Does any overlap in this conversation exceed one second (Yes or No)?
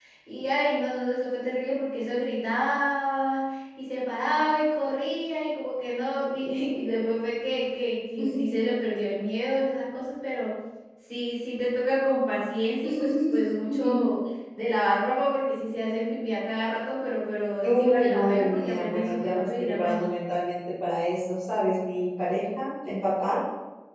Yes